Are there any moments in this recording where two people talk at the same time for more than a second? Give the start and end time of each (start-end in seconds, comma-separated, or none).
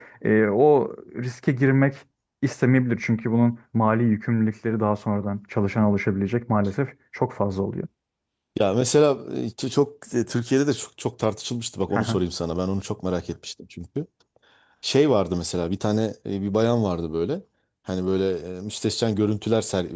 none